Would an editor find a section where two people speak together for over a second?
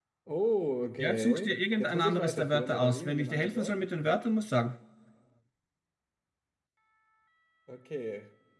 Yes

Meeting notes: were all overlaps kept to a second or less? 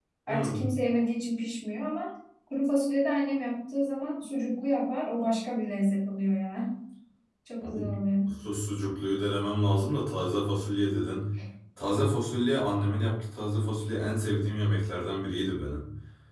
Yes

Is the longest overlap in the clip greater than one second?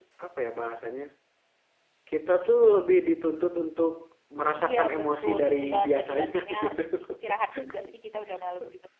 Yes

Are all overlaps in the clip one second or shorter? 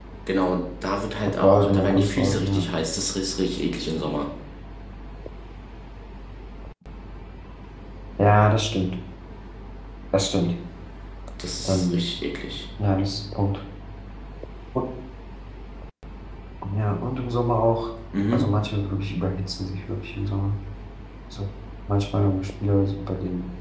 No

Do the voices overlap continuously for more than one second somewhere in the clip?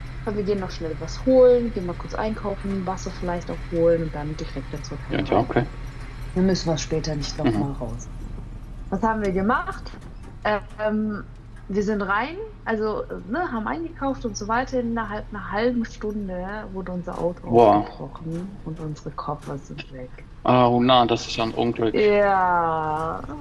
No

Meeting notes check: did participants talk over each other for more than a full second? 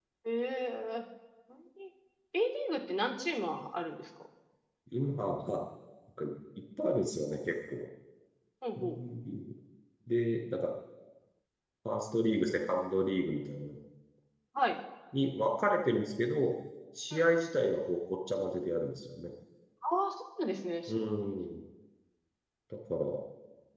No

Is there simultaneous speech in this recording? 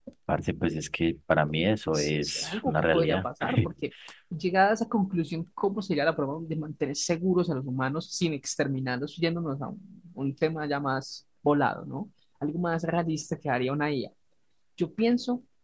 Yes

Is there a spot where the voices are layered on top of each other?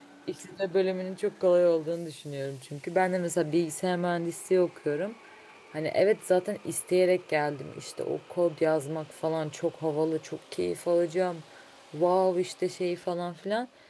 No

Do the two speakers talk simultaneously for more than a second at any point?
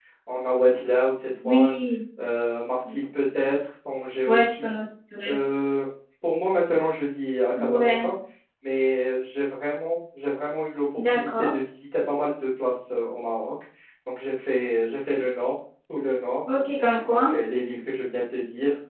No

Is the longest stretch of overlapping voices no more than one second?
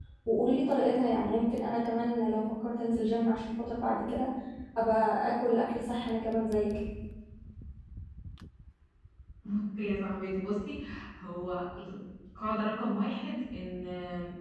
Yes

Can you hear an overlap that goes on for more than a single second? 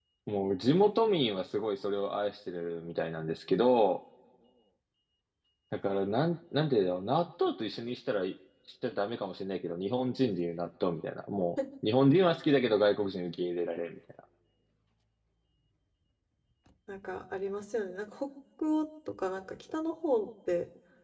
No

